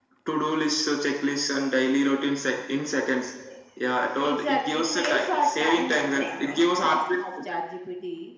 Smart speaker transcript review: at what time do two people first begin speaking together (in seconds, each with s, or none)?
4.2 s